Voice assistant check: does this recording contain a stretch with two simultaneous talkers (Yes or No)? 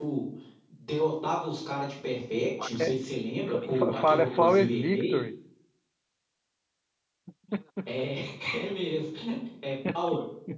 Yes